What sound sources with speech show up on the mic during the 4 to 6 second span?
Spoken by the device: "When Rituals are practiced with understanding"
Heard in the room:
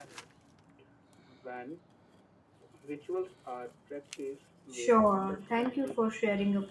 both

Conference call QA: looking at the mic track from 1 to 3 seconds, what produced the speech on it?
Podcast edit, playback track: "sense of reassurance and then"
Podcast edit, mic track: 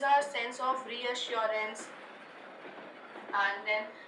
echo only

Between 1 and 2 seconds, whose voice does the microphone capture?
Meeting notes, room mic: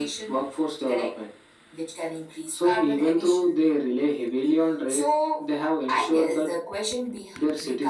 echo only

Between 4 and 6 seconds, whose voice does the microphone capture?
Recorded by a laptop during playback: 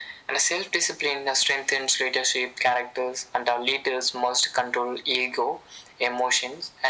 echo only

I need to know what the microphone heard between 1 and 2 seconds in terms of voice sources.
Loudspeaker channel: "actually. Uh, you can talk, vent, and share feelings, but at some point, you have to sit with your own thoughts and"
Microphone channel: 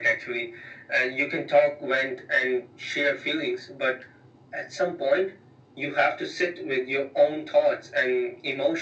echo only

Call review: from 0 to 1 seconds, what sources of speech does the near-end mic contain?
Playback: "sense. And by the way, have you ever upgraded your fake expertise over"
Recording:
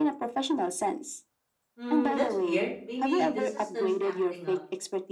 echo only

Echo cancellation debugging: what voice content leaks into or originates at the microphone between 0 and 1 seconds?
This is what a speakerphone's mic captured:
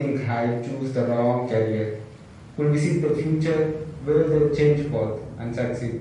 echo only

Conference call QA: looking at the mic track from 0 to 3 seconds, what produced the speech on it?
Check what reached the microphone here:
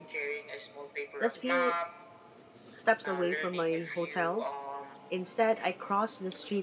both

